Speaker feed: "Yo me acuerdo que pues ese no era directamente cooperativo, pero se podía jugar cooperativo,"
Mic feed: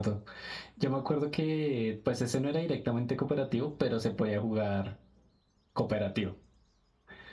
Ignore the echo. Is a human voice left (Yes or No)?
No